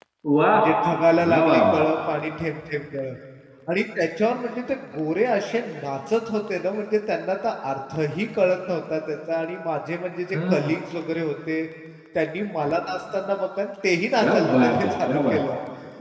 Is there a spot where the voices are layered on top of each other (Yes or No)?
Yes